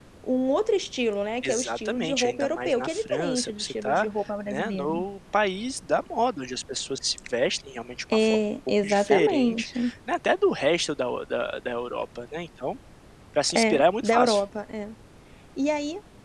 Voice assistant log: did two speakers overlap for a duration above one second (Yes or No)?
Yes